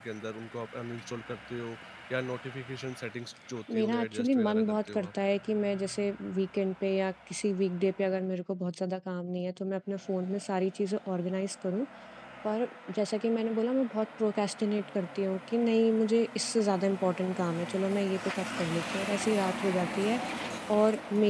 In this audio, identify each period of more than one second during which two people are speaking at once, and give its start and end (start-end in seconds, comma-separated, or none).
3.7-5.1